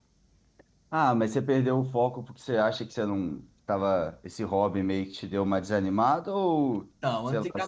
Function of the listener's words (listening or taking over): taking over